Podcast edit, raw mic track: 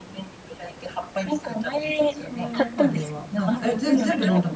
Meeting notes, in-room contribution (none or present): present